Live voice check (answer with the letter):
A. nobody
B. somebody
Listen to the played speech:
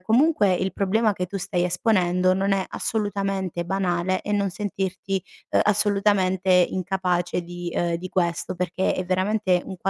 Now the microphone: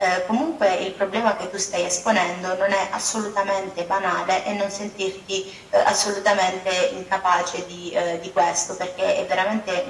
A